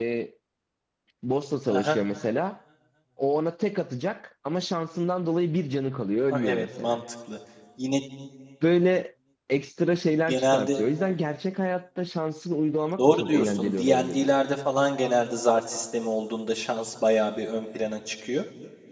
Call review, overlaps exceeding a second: present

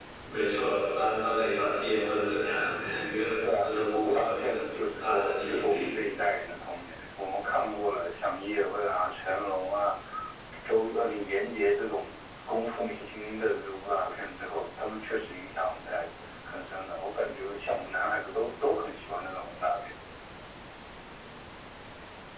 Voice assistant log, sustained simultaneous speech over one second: present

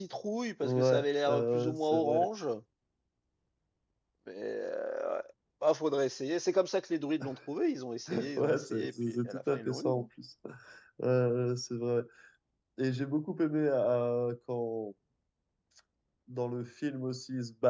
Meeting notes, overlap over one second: present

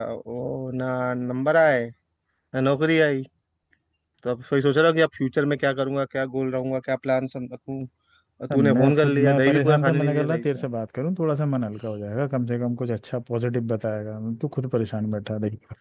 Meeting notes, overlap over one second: present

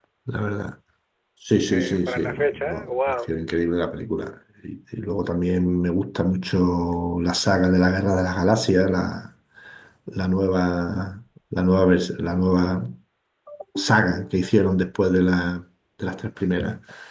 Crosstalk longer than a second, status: present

